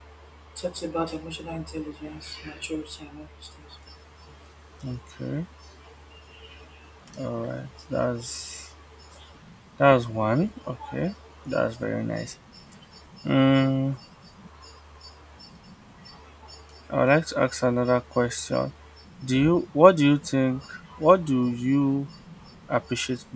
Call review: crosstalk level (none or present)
none